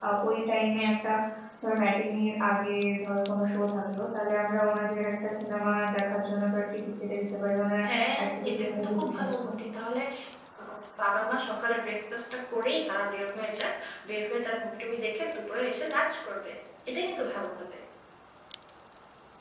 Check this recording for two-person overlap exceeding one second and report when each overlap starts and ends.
8.2-9.5

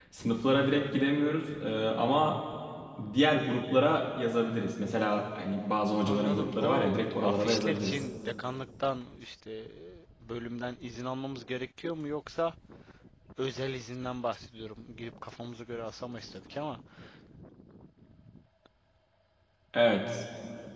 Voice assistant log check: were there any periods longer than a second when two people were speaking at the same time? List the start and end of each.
6.0-8.0

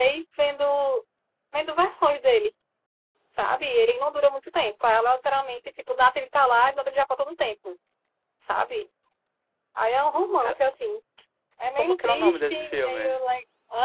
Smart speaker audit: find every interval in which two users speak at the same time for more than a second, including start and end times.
11.8-13.2

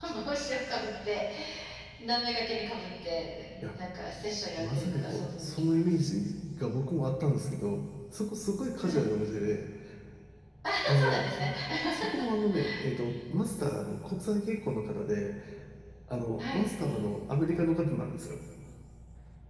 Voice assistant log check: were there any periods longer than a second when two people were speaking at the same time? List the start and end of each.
4.6-5.9

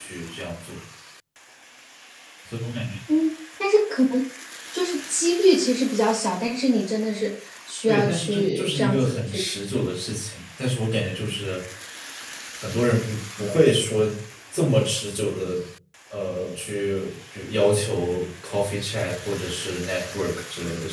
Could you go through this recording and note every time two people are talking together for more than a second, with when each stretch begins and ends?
7.9-9.4

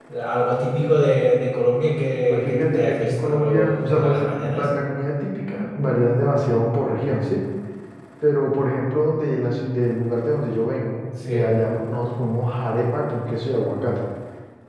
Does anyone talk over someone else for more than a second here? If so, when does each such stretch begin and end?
2.3-4.6

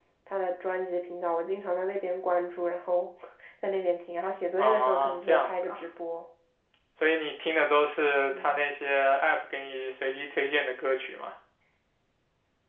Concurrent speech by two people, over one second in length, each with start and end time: 4.6-5.8

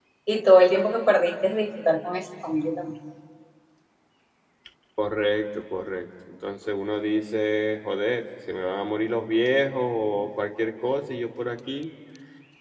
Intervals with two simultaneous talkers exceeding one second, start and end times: none

